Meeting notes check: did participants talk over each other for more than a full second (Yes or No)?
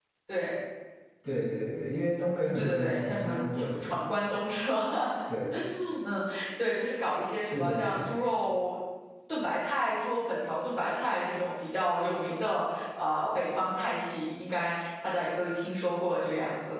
Yes